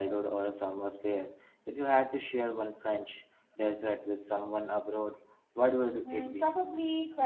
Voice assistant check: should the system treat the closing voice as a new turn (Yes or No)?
Yes